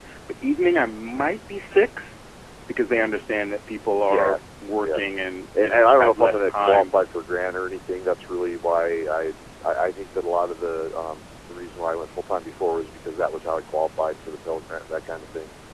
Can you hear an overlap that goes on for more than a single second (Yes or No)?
Yes